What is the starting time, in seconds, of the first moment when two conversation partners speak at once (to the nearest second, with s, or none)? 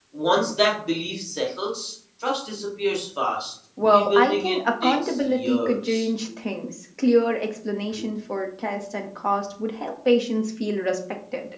4 s